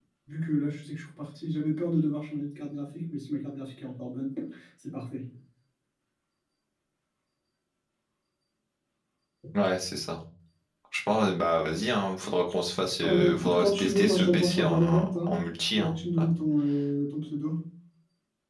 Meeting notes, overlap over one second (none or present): present